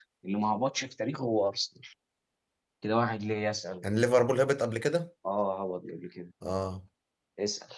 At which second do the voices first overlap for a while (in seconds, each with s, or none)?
none